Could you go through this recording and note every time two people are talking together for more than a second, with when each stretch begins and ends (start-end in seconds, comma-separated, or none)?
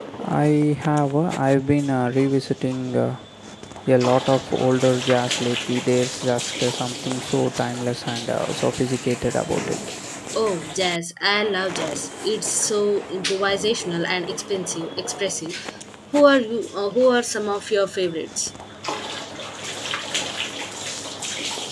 none